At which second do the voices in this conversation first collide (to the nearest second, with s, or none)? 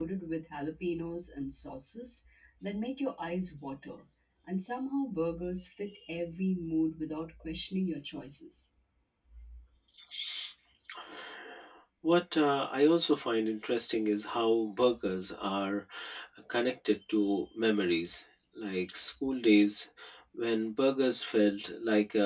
none